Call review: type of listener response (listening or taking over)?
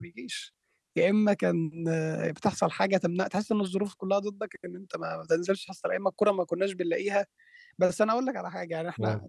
listening